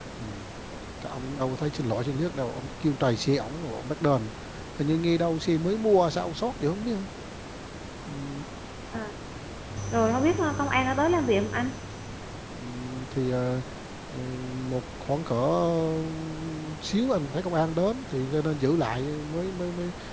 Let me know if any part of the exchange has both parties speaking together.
No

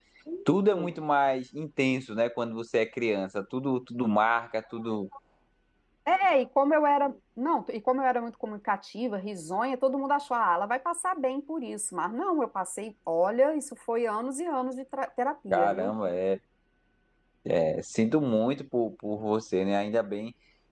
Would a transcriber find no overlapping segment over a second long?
Yes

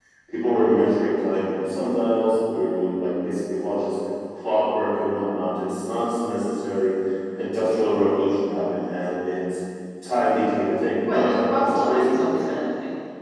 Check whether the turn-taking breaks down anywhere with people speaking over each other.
Yes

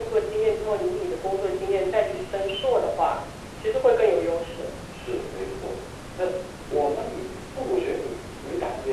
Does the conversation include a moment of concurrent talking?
No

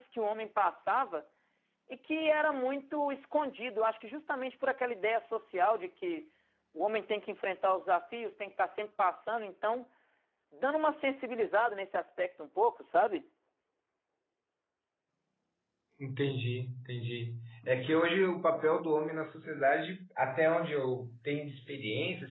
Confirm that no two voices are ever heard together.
Yes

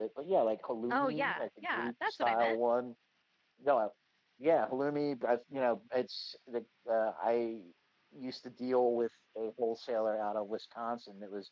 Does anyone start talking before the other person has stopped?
Yes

